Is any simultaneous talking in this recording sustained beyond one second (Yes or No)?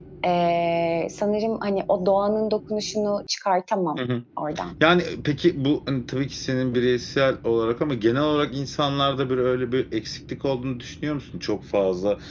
No